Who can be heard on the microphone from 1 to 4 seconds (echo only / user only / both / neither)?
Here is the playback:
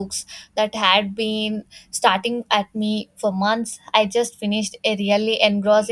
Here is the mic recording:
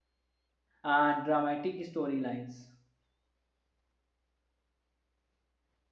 user only